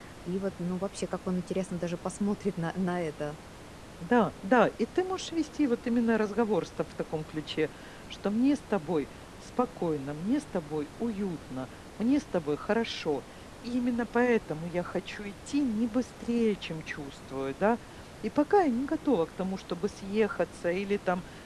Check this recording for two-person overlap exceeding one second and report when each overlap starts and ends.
none

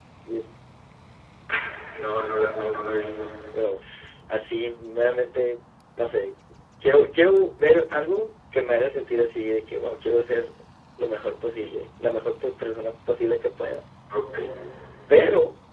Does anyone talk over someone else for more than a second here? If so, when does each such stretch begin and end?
none

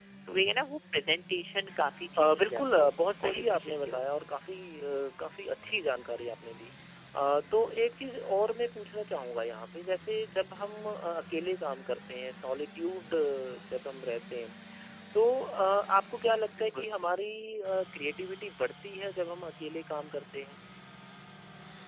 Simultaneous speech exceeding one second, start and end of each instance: 2.2-4.0

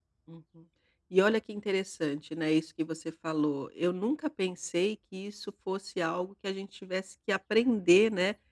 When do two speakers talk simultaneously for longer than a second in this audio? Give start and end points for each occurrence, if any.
none

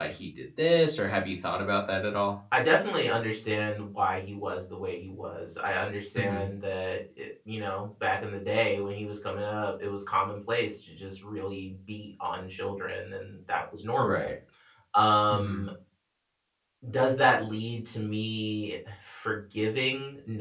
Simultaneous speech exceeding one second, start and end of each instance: none

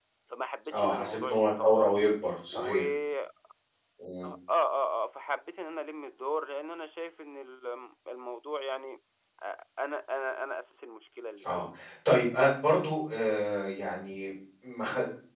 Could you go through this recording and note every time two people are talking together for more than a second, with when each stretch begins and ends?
0.7-1.9

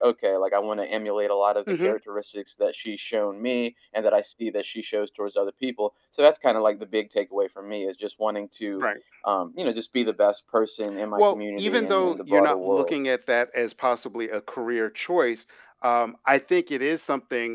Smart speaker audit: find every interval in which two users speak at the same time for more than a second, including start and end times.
11.2-13.0

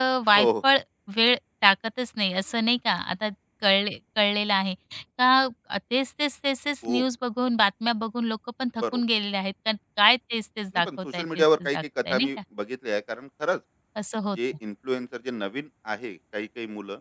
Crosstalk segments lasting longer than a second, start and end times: 10.8-12.3

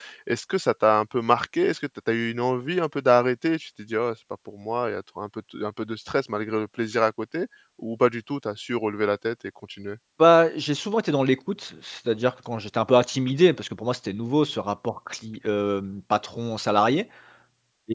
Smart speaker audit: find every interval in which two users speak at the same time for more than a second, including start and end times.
none

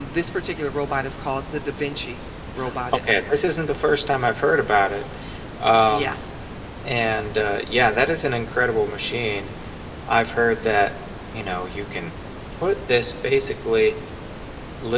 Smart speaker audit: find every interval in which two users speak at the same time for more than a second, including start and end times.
none

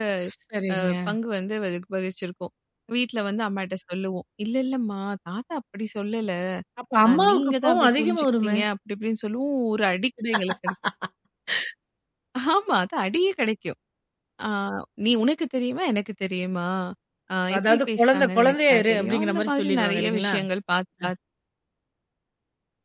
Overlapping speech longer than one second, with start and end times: 7.1-8.6, 17.6-20.4

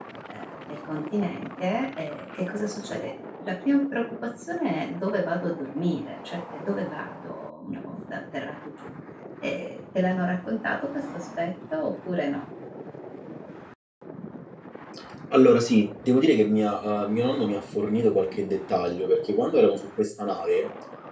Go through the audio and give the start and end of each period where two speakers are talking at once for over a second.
none

